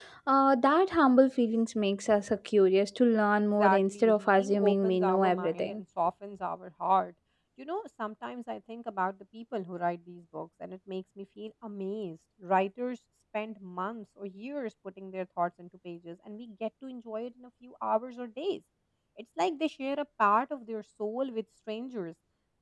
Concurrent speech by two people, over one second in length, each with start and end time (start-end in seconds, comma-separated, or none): 3.4-5.8